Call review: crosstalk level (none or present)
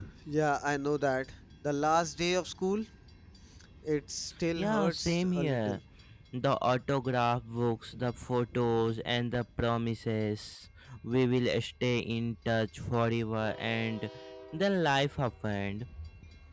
present